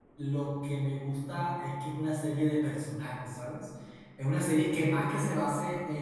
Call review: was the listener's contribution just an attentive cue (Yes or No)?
Yes